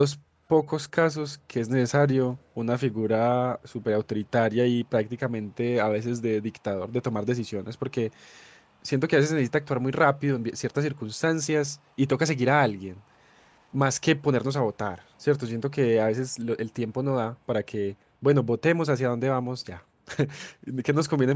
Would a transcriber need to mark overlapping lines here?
No

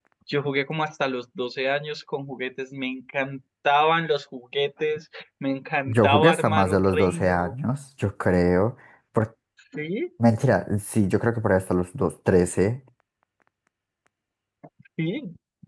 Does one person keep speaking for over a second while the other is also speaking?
Yes, from 5.9 s

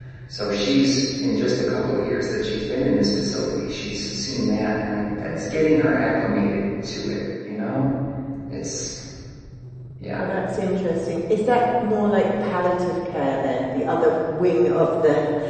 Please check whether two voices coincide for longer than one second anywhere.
No

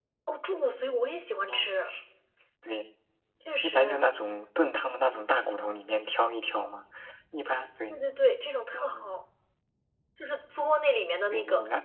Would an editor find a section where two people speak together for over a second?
No

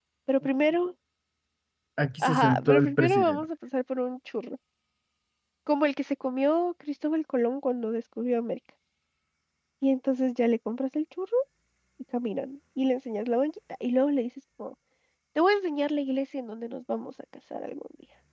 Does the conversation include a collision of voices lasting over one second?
Yes, from 2.2 s

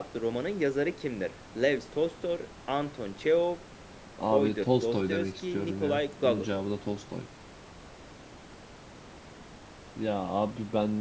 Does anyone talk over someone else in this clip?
Yes, from 4.3 s

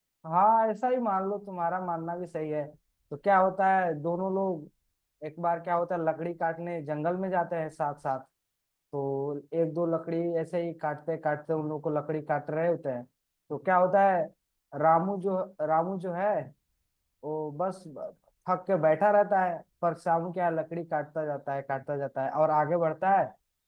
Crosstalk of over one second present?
No

